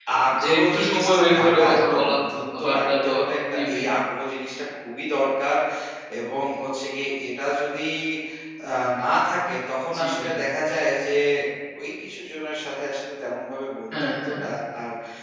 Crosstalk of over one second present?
Yes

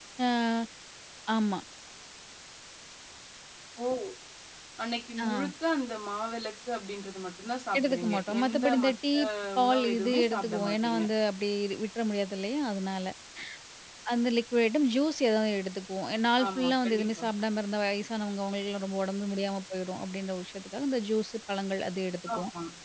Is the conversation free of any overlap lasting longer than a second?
No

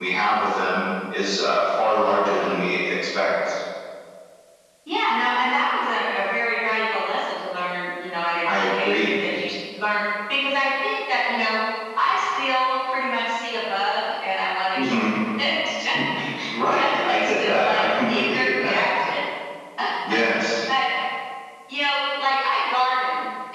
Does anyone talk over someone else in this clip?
Yes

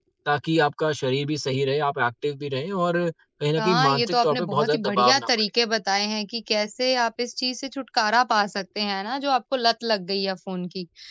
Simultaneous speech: Yes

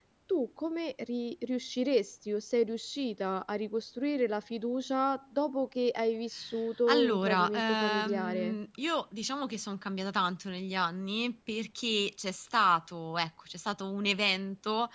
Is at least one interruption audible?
Yes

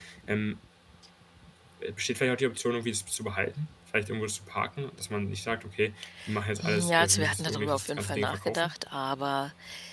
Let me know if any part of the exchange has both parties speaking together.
Yes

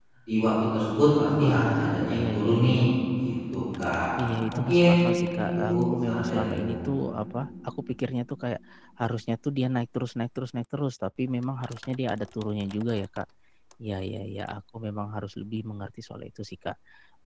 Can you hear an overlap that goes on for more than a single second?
Yes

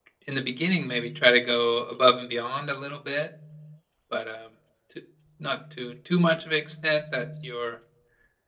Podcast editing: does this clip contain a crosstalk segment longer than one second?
No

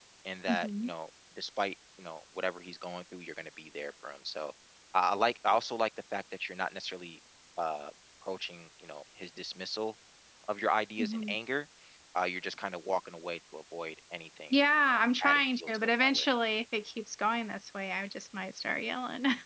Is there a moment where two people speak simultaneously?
Yes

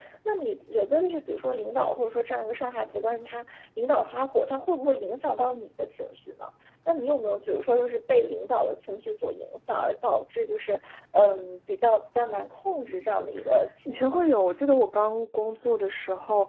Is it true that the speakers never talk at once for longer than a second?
Yes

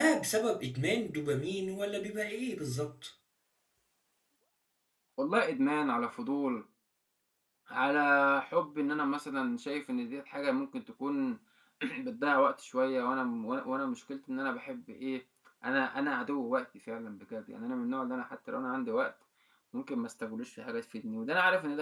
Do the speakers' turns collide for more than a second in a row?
No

